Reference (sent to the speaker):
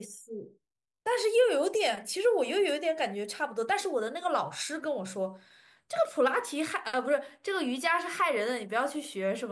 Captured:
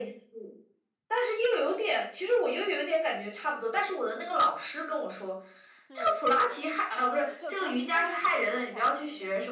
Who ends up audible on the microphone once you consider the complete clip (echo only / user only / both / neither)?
both